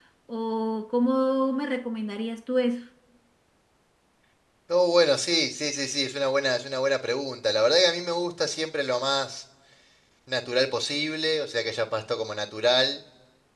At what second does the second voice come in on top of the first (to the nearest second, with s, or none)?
none